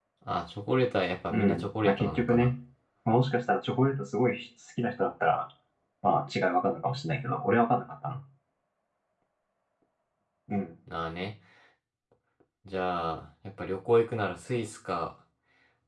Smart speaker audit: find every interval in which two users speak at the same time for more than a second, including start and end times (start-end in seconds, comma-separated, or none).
1.3-2.5